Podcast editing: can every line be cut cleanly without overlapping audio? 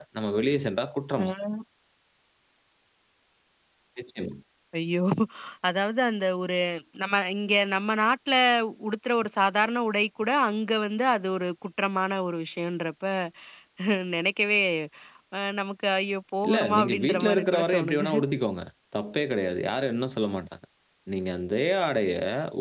No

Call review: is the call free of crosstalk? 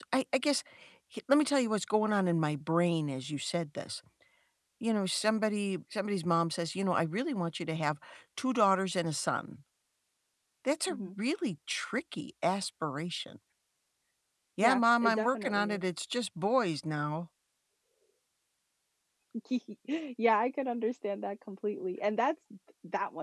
No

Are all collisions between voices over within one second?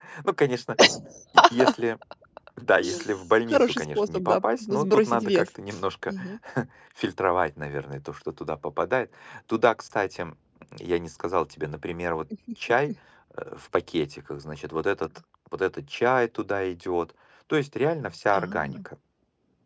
No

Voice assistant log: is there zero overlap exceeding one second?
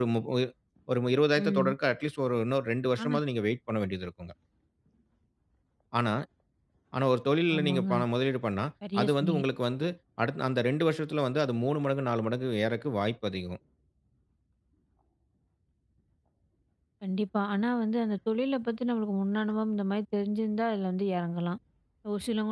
Yes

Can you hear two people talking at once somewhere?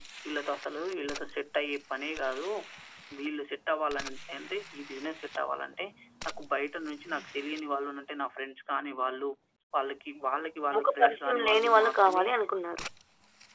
Yes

